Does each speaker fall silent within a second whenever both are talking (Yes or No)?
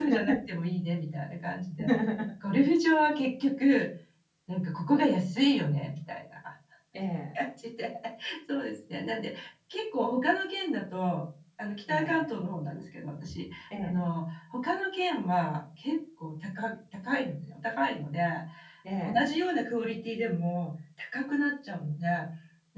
Yes